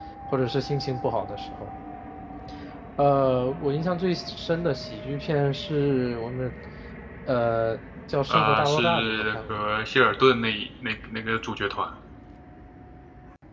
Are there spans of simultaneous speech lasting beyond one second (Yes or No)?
Yes